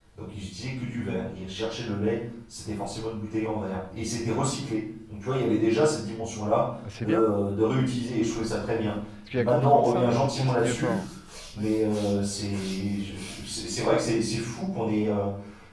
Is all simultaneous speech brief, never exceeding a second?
No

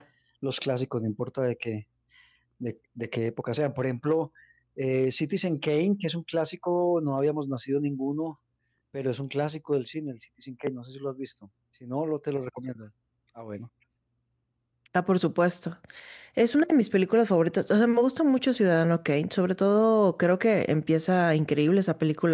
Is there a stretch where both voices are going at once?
No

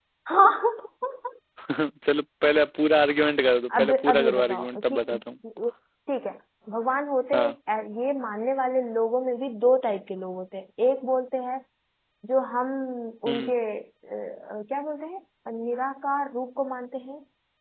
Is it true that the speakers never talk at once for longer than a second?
No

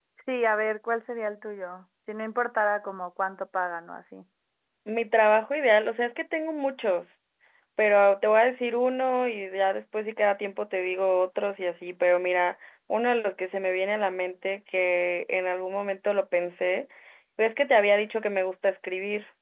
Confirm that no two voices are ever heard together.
Yes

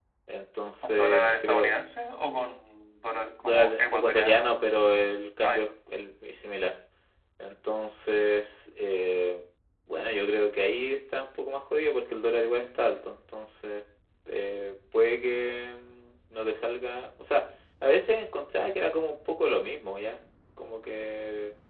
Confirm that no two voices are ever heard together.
No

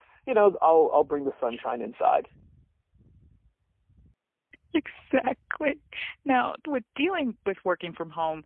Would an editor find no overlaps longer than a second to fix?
Yes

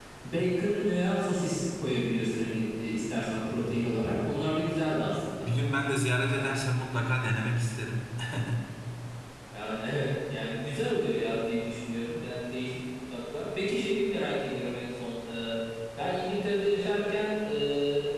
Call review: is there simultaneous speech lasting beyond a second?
No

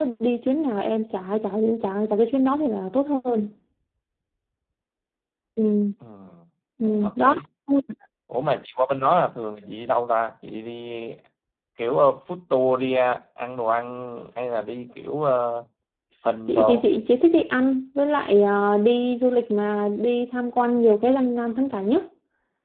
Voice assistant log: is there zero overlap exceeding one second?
Yes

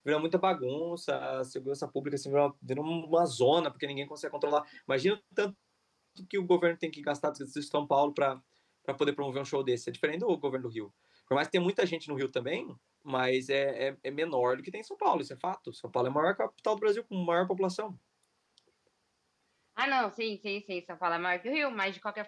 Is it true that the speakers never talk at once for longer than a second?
Yes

